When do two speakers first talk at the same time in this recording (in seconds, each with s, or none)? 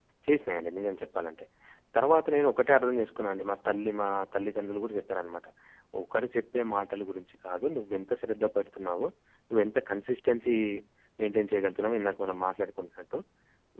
none